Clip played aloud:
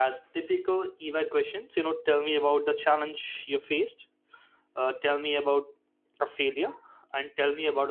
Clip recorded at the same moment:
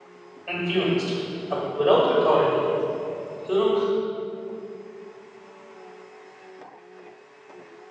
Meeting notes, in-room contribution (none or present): present